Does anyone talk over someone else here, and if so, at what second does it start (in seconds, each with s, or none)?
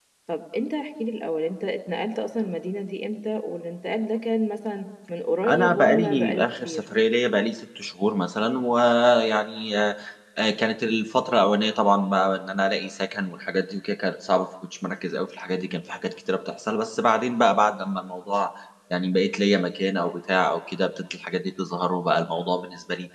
5.4 s